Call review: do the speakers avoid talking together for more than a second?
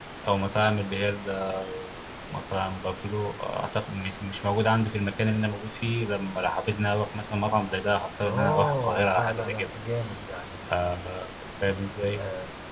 No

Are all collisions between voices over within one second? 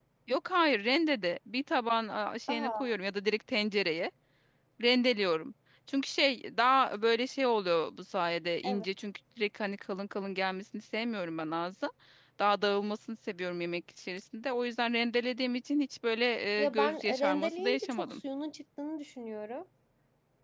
No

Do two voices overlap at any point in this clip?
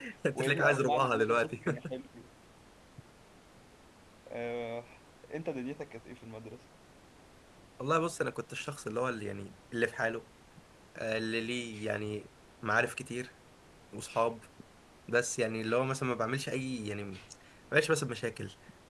Yes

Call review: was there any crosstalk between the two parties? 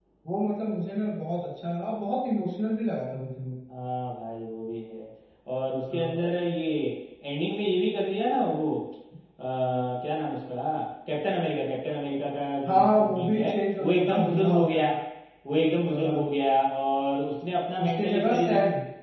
Yes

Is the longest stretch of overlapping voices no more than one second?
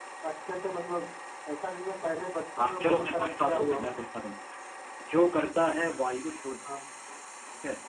No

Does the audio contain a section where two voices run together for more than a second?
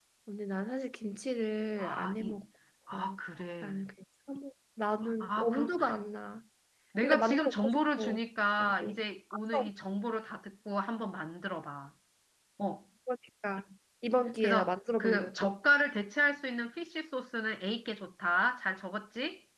Yes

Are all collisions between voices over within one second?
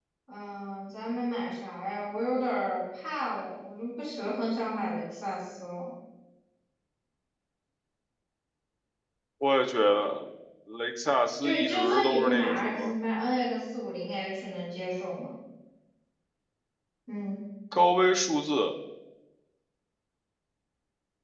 No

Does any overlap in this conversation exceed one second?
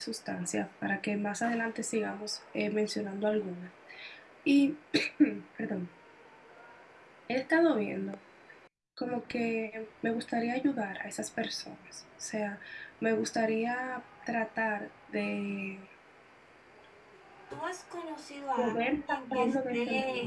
Yes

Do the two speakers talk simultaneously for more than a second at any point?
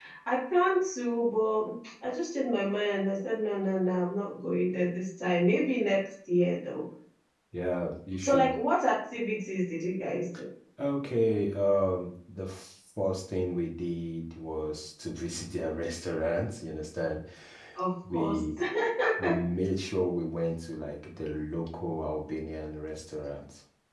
No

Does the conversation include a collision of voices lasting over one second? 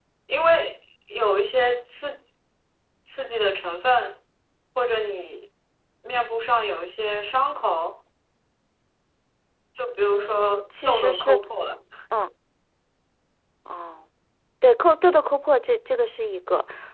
Yes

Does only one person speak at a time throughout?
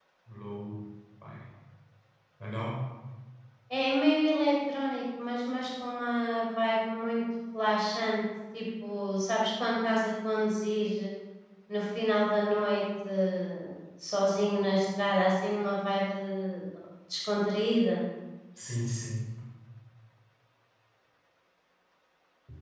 Yes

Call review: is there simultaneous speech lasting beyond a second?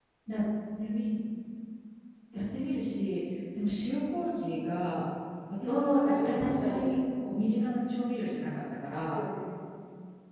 Yes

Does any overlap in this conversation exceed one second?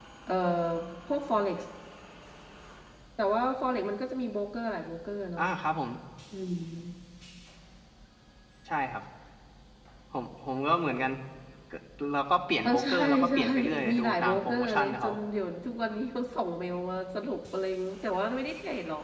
Yes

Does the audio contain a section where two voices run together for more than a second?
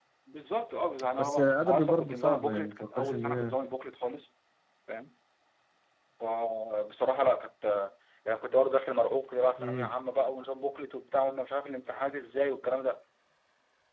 Yes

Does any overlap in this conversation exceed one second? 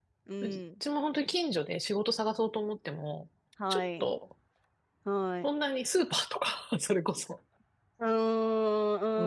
No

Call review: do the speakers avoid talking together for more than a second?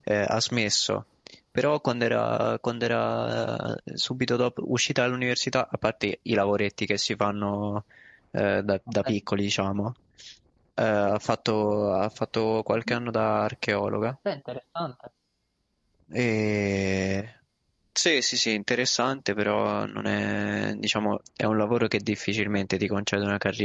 Yes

